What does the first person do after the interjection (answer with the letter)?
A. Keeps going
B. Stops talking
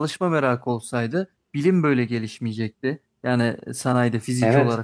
A